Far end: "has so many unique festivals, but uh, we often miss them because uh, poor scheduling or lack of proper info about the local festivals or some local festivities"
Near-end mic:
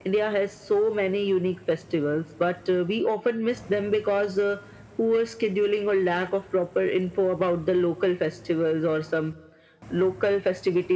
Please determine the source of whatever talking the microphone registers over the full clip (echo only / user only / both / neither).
echo only